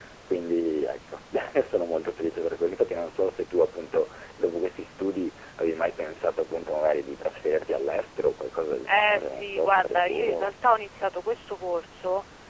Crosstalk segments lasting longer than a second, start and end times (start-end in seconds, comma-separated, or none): 8.8-10.5